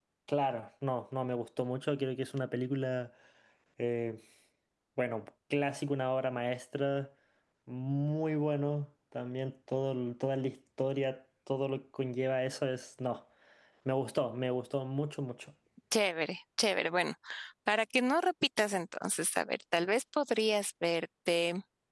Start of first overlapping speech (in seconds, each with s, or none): none